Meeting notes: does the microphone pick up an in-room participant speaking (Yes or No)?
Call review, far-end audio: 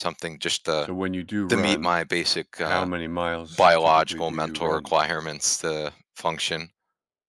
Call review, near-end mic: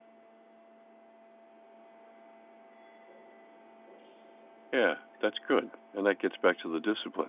Yes